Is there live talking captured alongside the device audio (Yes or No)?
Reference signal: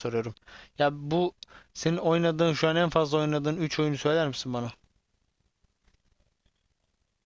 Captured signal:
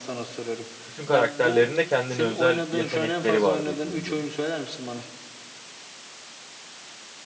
Yes